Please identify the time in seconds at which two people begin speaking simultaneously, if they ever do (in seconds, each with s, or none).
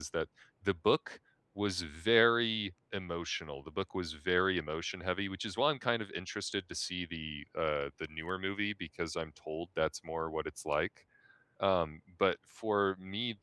none